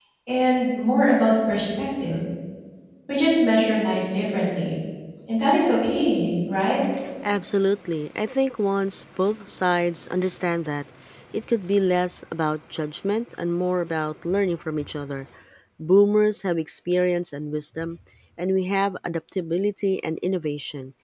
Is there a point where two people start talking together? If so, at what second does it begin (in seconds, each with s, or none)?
none